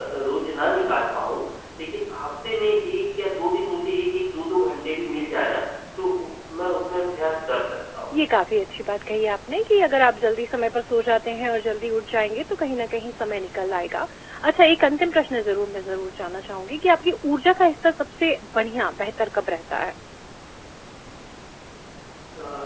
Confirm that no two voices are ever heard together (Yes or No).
Yes